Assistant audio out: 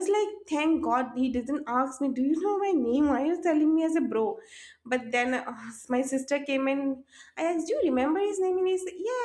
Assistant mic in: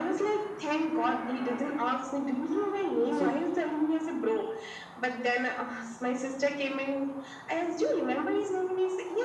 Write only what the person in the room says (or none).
So,